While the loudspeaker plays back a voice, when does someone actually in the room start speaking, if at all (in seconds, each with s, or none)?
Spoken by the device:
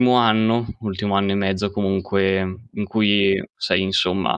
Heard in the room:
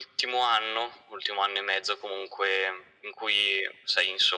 none